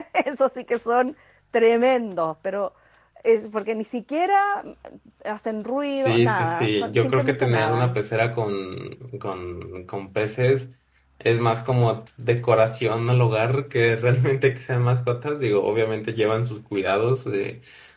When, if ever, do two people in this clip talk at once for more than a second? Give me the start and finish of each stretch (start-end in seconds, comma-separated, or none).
5.9-8.0